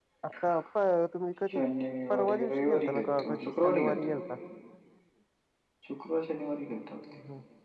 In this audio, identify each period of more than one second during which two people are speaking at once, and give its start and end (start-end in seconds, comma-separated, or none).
2.1-4.0